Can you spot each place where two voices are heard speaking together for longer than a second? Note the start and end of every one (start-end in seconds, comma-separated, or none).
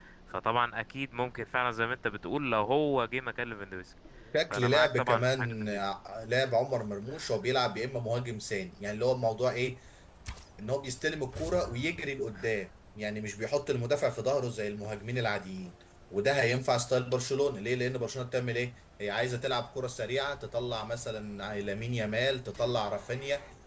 4.5-5.8